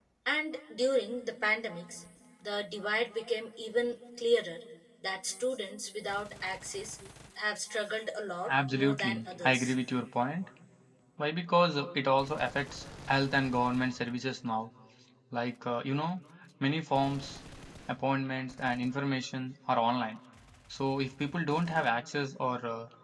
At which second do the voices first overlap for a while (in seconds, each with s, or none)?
8.5 s